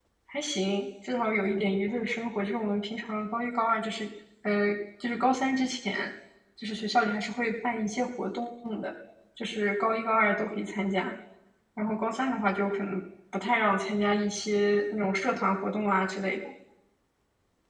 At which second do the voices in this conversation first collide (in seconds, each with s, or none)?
none